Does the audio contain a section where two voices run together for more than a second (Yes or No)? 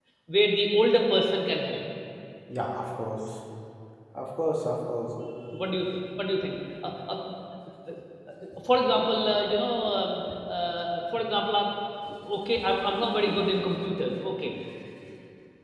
No